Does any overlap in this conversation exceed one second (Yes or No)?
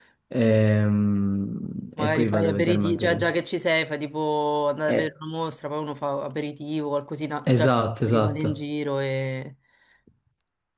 Yes